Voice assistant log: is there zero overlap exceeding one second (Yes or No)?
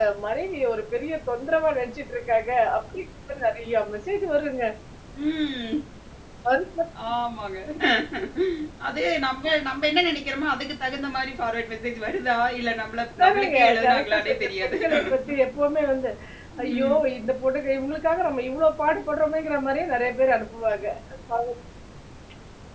No